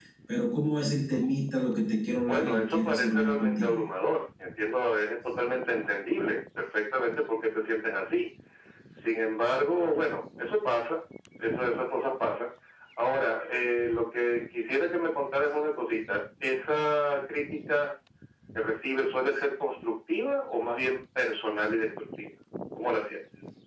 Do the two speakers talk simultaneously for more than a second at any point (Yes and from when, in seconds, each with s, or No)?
Yes, from 2.3 s